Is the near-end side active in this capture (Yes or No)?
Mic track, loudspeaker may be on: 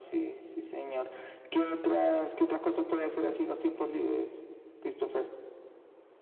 No